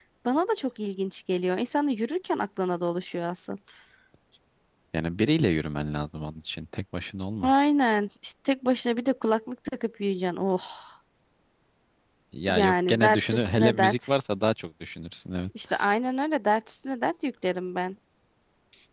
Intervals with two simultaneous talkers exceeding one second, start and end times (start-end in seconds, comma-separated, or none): 12.4-14.1